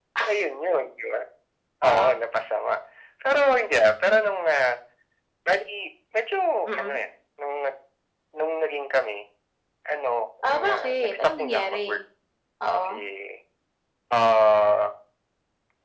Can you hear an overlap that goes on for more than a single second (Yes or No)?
Yes